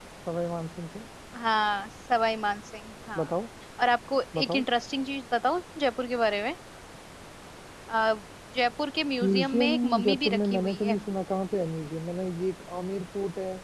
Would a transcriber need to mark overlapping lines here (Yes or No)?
Yes